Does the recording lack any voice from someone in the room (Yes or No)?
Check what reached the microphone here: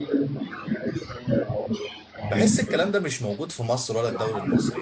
No